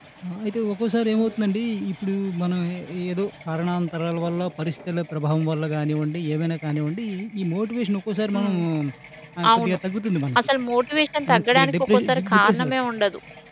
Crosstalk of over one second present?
Yes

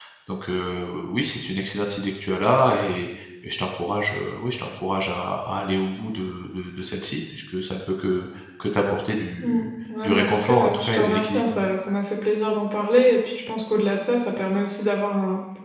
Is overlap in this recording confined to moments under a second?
No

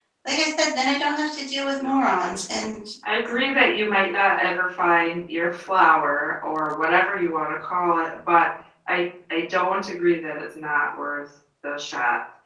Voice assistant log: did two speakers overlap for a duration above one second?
No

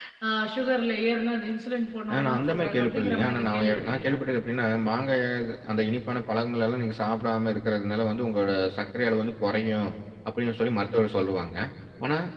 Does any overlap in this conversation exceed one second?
Yes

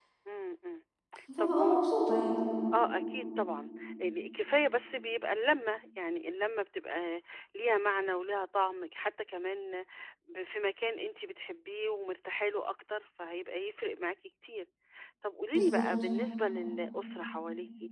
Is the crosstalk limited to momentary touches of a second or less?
Yes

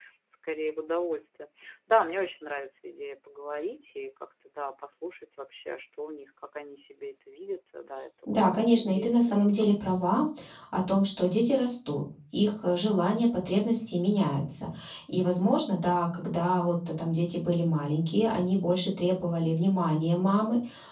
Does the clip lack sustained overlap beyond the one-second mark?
No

